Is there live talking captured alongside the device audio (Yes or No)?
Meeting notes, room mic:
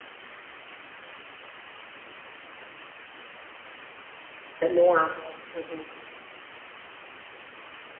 Yes